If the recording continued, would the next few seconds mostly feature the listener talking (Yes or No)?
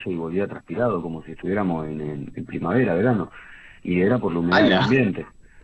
No